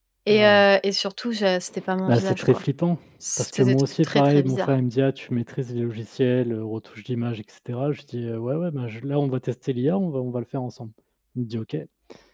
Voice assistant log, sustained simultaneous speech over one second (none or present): present